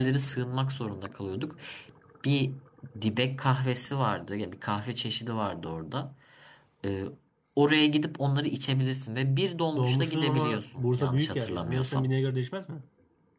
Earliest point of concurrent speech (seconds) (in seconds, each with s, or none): 9.8 s